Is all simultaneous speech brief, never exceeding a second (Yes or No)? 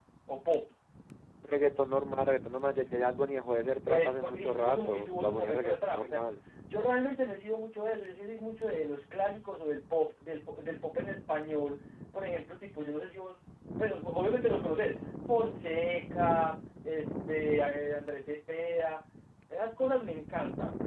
No